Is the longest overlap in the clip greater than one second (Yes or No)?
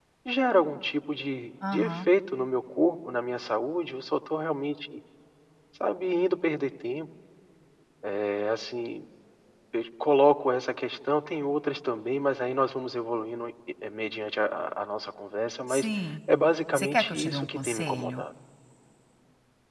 Yes